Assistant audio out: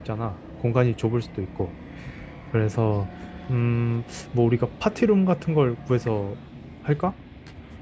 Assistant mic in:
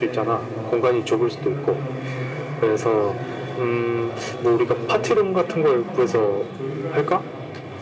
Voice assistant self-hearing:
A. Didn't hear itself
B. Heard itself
B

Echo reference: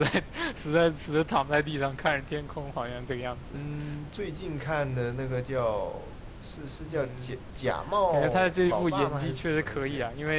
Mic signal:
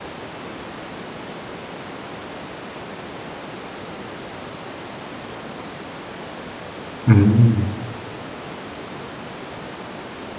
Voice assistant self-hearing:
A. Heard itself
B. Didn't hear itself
B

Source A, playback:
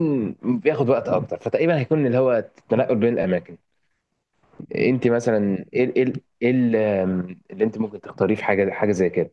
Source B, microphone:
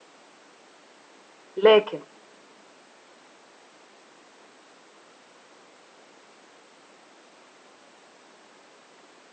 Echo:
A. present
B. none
B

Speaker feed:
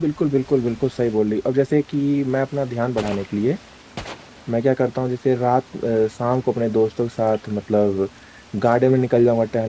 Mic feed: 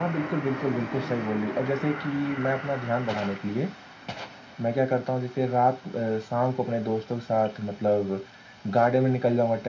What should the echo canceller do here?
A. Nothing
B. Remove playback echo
B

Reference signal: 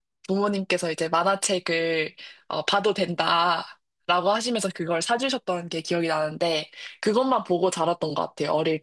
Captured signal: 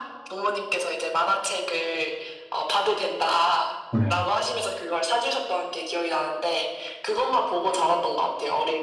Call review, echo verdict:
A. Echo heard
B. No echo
A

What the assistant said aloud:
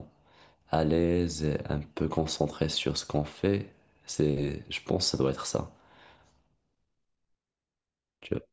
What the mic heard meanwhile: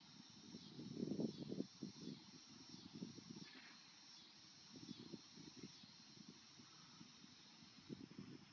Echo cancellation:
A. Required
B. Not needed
B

